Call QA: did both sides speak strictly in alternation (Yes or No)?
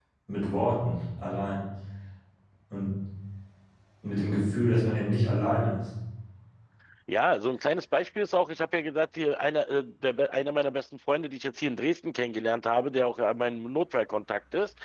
Yes